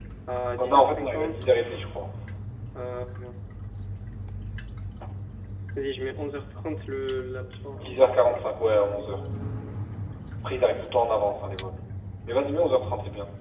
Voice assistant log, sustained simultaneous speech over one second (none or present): present